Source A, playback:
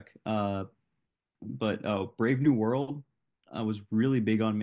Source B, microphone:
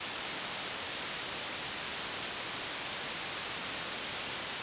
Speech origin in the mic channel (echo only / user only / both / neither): neither